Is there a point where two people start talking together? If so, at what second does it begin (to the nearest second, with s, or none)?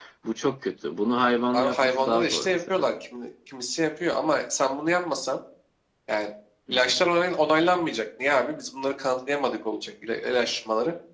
2 s